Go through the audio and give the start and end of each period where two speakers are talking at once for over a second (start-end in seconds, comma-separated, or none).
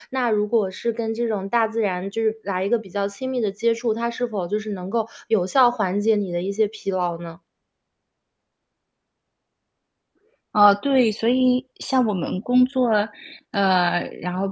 none